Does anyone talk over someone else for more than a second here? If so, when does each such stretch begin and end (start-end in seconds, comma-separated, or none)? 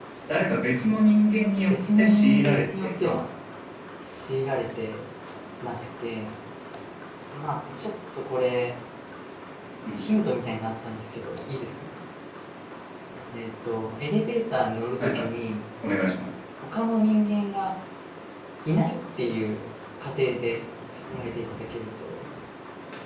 1.7-3.2